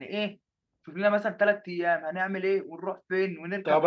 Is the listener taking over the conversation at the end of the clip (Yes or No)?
Yes